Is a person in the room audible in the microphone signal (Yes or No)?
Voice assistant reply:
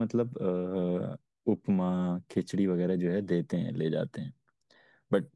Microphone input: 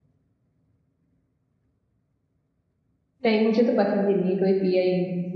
Yes